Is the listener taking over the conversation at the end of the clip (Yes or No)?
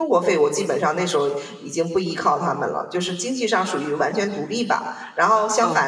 No